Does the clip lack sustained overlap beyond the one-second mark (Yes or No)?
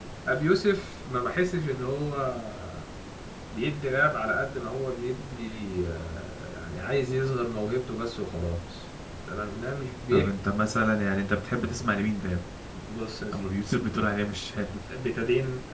Yes